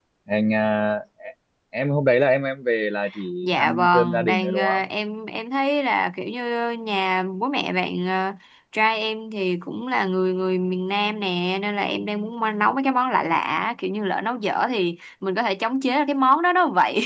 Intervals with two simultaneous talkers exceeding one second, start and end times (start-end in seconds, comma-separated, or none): 3.4-4.8